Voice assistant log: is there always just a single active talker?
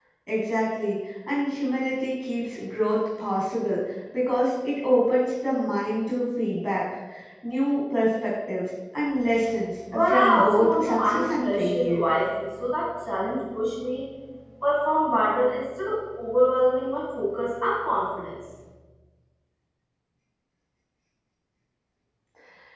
No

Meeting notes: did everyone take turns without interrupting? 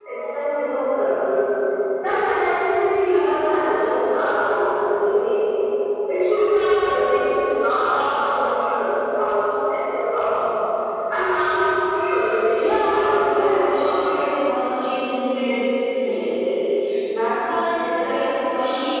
No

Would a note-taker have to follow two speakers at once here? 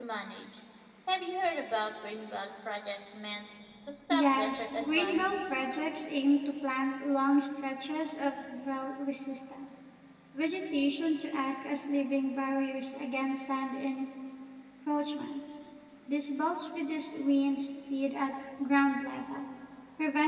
Yes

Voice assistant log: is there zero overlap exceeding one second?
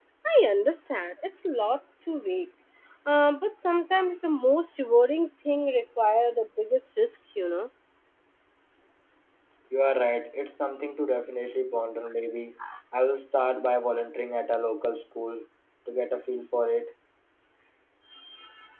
Yes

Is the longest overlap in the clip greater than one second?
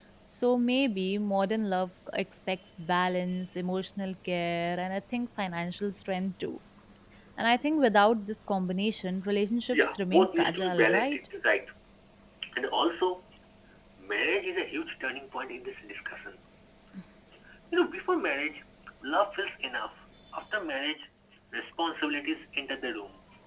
Yes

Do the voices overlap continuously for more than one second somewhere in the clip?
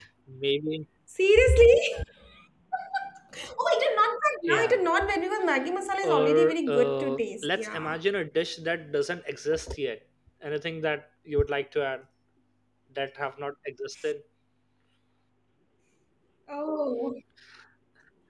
Yes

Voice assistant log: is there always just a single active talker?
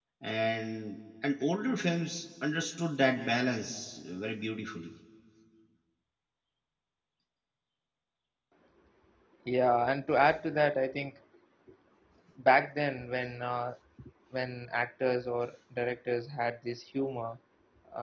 Yes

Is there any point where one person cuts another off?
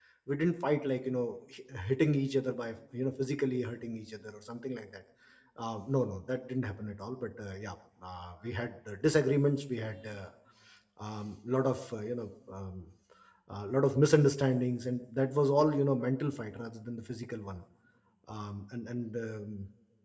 No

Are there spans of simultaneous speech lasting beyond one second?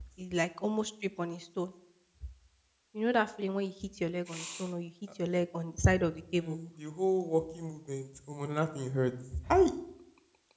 No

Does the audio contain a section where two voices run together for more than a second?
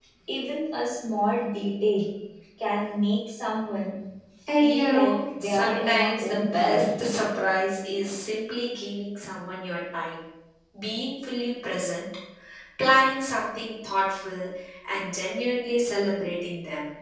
Yes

